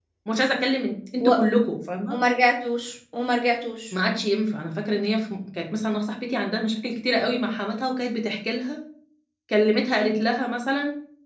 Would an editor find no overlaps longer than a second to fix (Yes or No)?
Yes